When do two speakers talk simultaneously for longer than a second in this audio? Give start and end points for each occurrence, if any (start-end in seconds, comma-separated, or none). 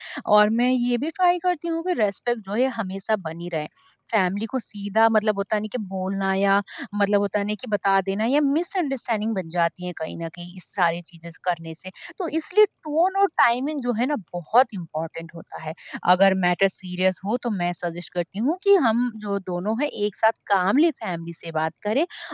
none